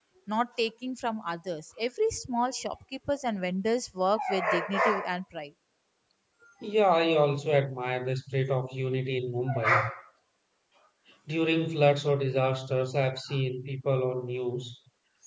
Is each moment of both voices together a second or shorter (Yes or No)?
Yes